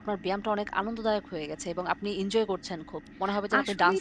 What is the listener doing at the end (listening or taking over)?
taking over